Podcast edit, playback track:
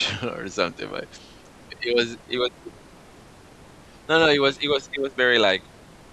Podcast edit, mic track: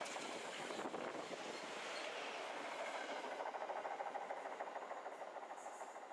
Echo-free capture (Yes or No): Yes